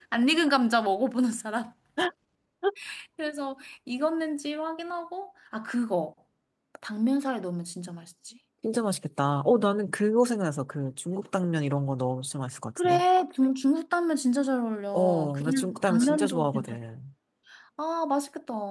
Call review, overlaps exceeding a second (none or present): present